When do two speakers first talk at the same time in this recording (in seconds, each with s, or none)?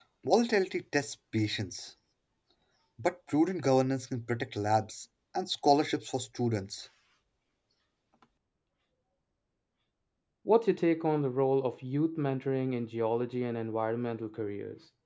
none